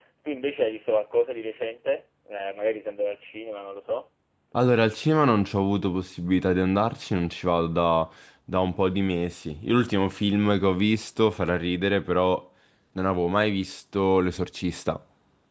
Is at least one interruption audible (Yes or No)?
No